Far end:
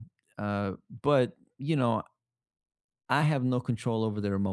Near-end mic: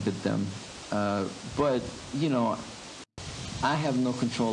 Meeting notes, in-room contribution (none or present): none